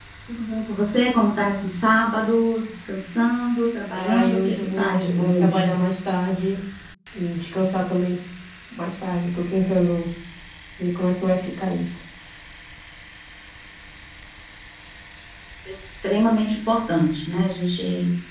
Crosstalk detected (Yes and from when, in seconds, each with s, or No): Yes, from 3.9 s